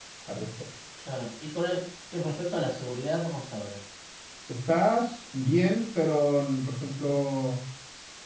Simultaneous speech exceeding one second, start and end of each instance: none

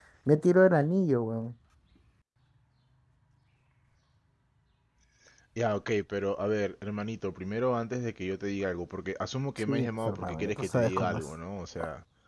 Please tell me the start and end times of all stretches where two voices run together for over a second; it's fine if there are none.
9.6-11.2

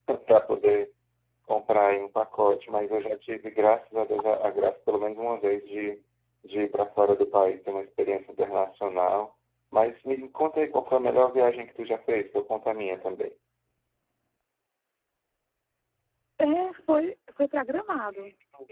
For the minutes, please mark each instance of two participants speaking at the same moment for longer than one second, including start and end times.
none

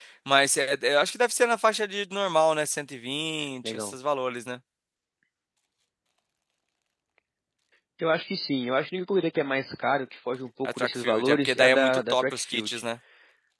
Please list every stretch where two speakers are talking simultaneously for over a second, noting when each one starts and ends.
10.7-12.8

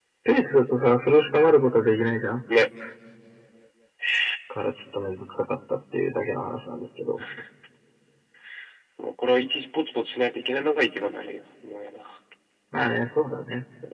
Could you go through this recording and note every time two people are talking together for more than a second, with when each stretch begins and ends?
none

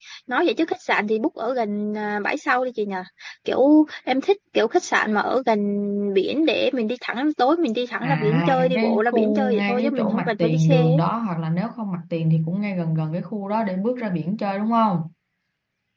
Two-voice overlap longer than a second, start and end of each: 8.0-11.0

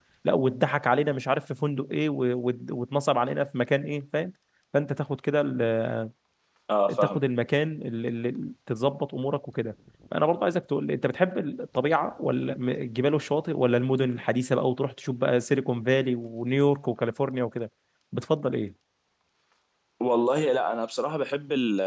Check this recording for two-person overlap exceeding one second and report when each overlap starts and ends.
none

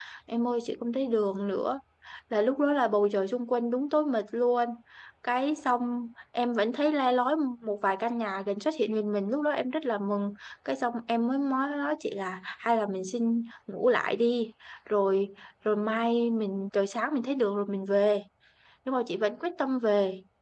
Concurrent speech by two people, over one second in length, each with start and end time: none

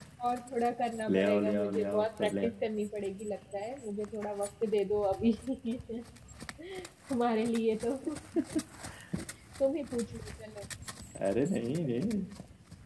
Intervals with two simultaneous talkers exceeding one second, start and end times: 1.1-2.5

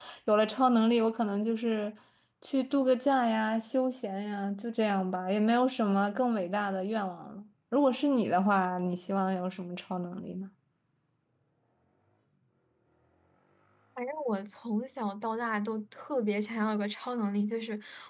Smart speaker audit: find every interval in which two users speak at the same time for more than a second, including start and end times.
none

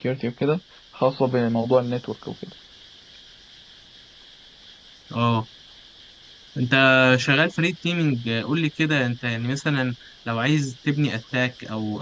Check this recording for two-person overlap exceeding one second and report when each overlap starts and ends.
none

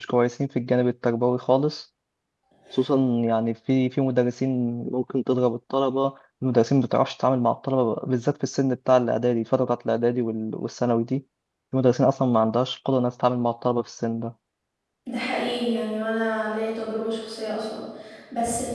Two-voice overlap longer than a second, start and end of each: none

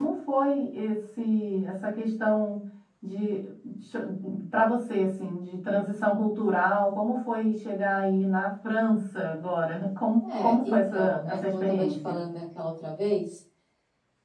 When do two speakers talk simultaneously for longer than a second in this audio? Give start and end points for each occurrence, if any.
10.2-12.2

